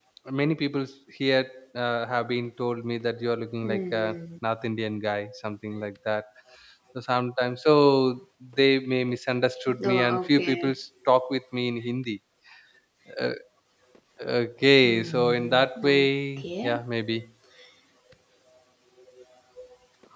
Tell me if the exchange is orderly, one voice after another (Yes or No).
No